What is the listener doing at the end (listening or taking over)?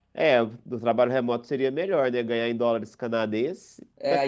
taking over